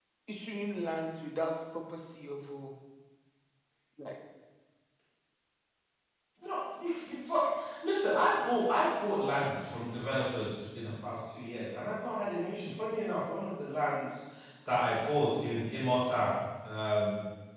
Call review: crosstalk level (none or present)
none